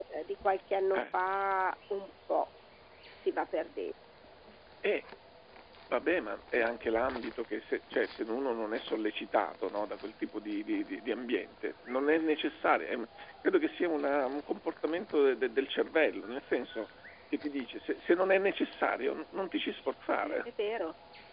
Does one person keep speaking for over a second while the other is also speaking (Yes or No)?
No